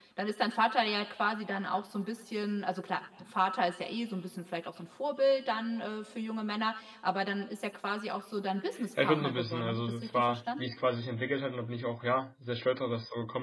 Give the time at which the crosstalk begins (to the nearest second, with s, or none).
9 s